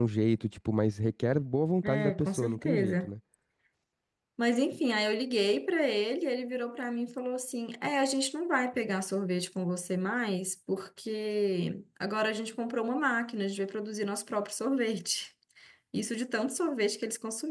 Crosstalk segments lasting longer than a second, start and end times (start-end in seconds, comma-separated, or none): 1.8-3.1